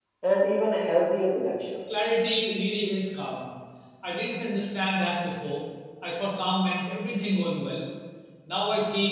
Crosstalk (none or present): none